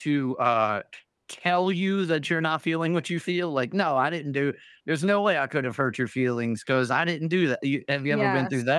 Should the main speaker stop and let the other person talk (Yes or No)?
Yes